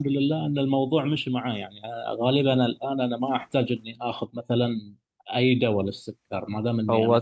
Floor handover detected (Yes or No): No